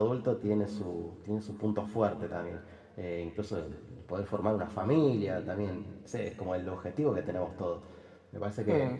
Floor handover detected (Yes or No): No